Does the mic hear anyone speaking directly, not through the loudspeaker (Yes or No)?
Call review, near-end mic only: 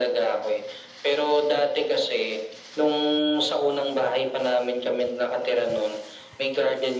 No